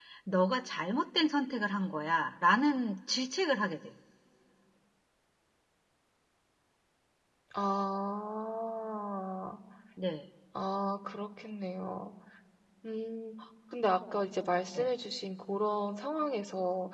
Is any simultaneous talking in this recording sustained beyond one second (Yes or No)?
No